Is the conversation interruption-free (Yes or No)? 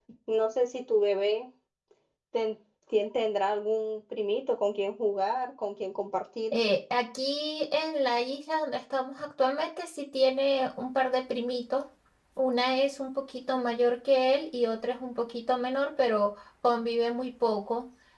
Yes